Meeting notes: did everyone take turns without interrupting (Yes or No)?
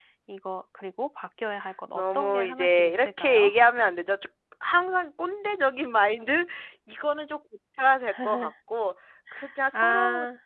No